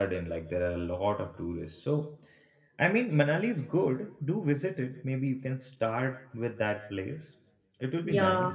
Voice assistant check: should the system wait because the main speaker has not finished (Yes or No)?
No